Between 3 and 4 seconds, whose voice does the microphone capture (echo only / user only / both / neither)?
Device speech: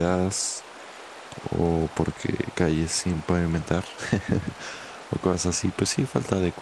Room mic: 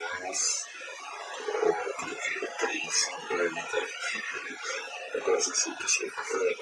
echo only